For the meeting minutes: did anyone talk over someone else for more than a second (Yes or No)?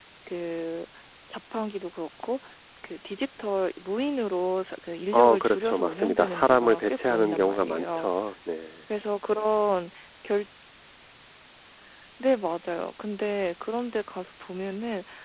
Yes